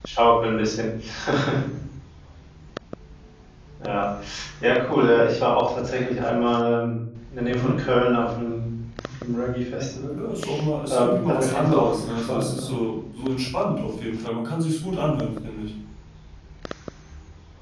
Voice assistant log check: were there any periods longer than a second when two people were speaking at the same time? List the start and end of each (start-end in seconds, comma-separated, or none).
10.9-12.7